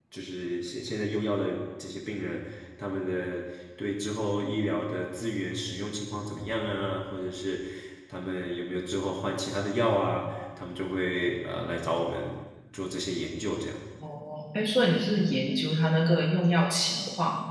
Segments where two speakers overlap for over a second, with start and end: none

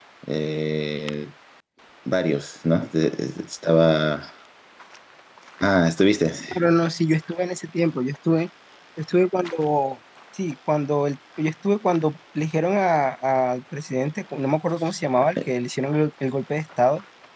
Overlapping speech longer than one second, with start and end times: none

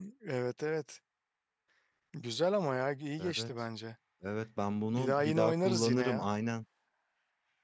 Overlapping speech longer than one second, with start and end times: 4.9-6.3

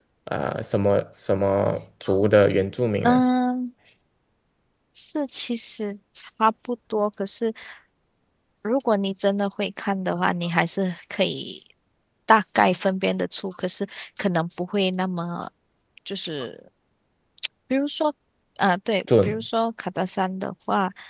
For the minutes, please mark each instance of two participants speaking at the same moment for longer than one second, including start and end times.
none

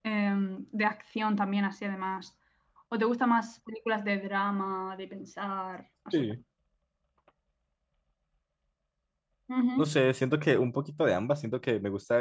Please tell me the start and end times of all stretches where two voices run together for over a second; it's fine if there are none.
none

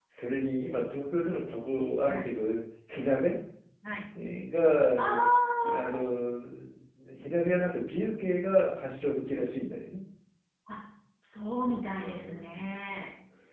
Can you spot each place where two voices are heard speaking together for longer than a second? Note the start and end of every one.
11.6-12.9

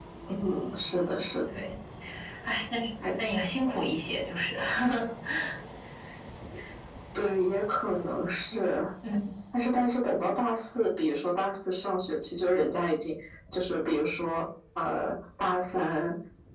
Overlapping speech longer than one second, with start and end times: none

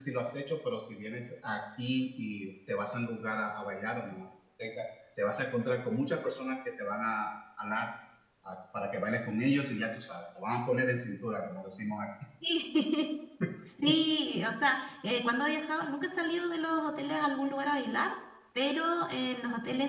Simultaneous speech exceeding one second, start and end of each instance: none

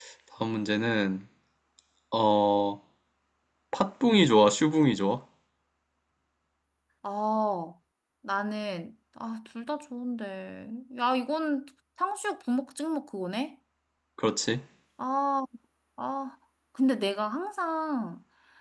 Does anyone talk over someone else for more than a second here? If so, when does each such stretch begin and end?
none

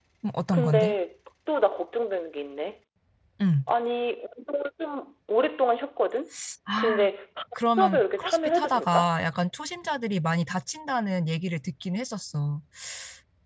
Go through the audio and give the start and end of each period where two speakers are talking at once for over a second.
7.8-9.1

